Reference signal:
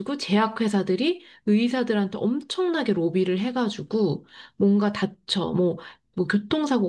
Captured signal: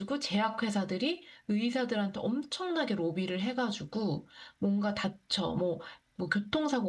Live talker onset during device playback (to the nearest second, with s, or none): none